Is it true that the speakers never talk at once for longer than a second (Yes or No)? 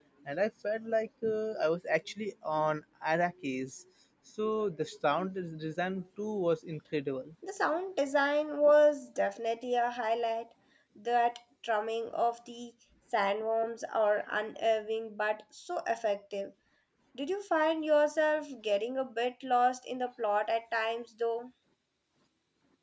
Yes